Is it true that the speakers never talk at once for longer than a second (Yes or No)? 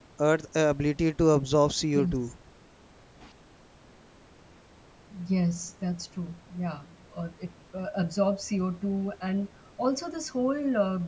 Yes